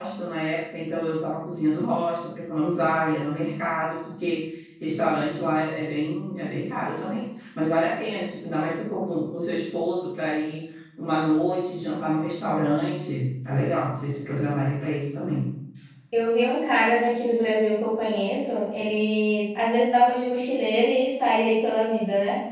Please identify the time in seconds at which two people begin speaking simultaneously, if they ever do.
none

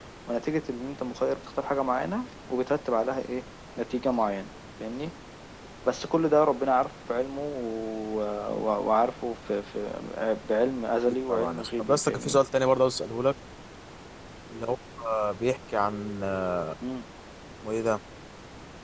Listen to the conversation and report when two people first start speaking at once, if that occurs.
11 s

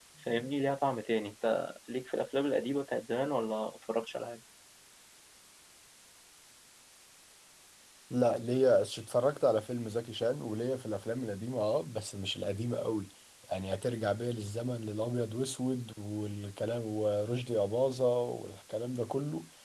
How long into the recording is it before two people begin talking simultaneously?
none

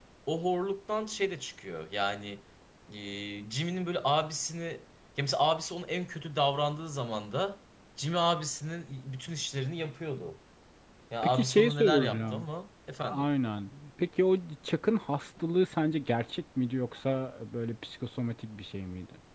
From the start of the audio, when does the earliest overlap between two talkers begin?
11 s

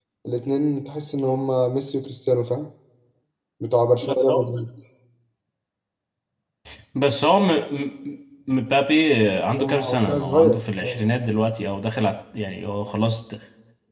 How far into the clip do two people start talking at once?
10 s

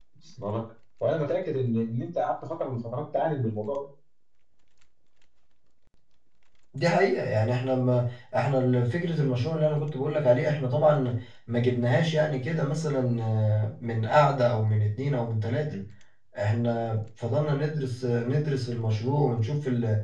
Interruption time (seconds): none

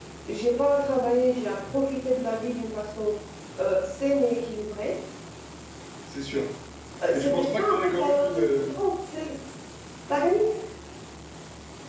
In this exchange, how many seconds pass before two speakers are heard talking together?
7 s

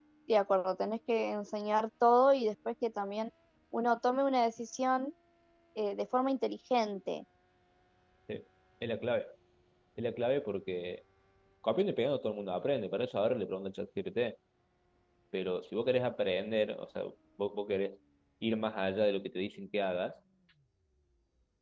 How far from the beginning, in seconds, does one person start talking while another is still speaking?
none

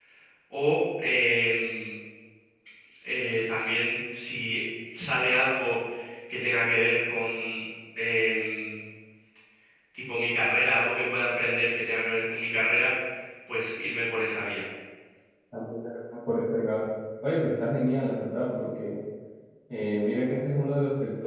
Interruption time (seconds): none

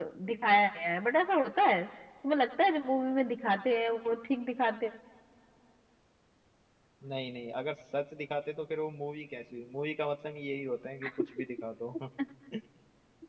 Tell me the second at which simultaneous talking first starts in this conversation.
none

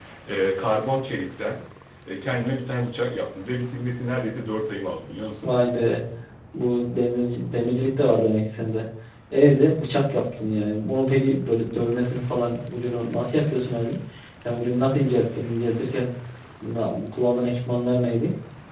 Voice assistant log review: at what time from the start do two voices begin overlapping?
none

